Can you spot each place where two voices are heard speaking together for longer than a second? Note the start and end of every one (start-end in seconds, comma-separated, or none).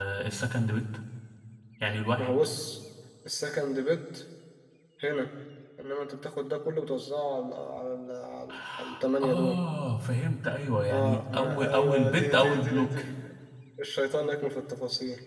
10.9-13.0